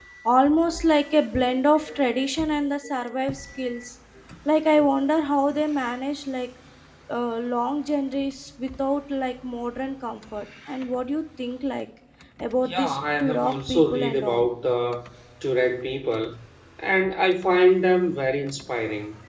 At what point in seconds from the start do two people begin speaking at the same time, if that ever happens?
12.6 s

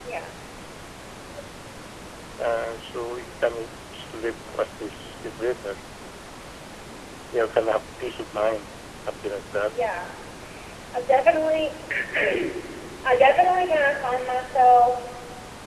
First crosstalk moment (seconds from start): none

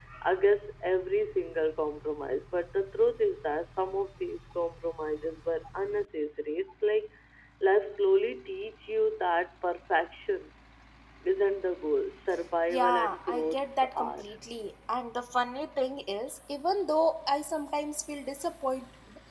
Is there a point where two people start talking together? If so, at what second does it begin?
12.7 s

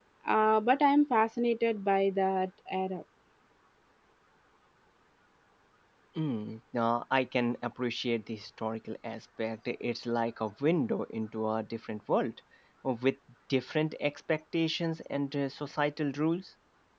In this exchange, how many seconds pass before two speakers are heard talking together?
none

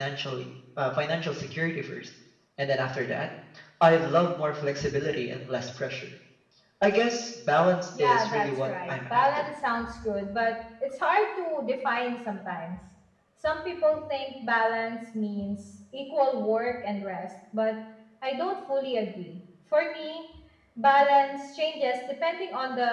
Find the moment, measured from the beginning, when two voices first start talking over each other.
7.9 s

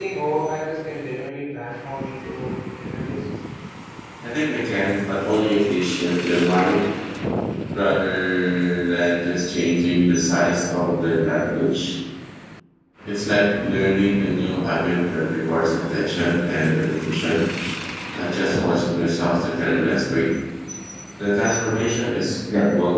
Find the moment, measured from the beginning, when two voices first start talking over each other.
none

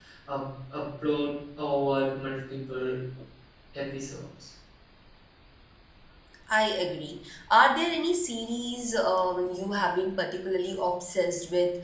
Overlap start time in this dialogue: none

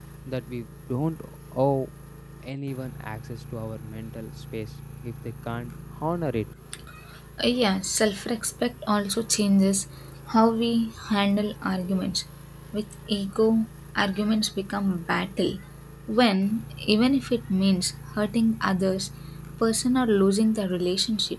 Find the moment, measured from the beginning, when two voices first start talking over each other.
none

